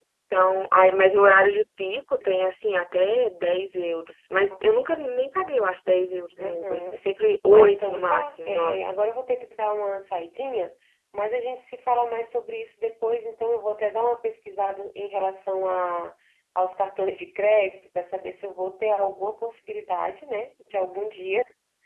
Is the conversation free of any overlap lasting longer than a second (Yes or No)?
No